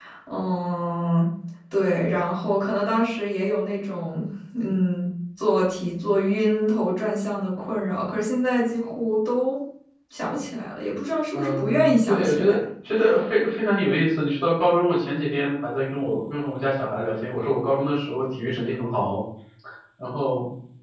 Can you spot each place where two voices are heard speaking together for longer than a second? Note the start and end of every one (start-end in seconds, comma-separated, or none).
11.3-12.5